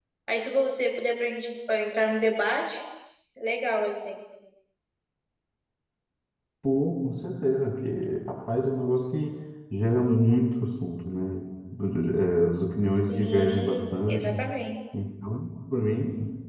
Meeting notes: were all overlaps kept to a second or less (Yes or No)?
No